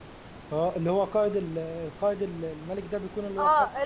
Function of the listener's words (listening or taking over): taking over